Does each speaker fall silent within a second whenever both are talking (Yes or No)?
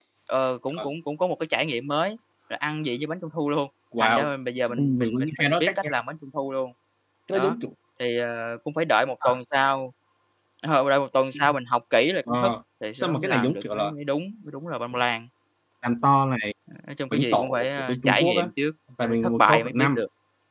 No